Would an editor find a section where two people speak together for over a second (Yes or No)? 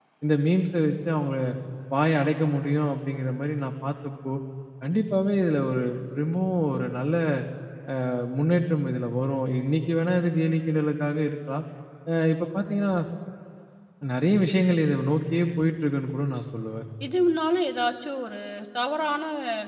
No